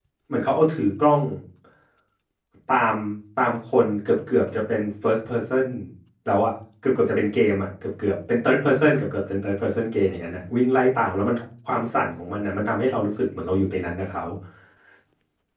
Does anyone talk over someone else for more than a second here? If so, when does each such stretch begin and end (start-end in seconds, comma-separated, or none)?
none